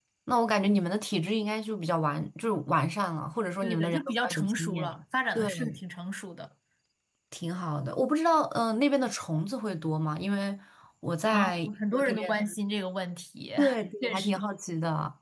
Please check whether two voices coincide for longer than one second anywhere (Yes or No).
Yes